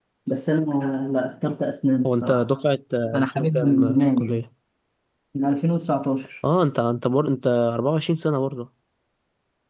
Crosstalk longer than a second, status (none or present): present